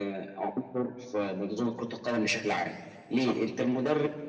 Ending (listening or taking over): listening